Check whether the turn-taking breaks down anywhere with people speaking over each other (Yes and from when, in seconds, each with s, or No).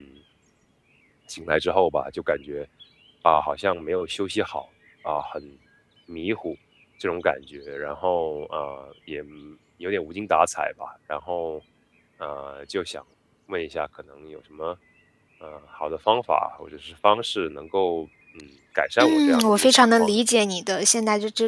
Yes, from 19.0 s